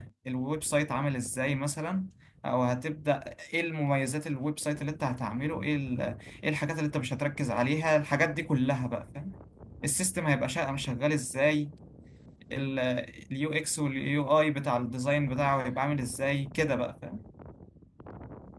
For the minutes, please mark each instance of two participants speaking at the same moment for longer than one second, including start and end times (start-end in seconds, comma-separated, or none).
none